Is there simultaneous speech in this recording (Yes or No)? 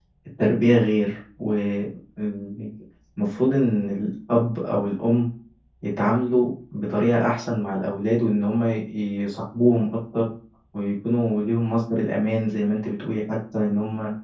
No